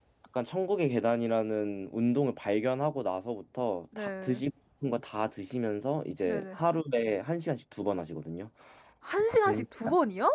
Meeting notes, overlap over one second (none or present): none